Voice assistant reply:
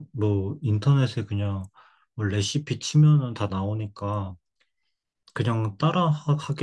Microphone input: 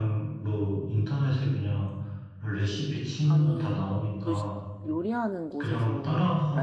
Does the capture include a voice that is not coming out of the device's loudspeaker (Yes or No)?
Yes